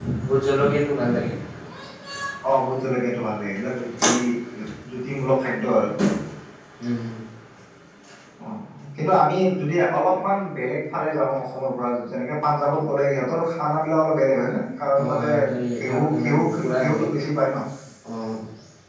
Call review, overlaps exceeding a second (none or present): present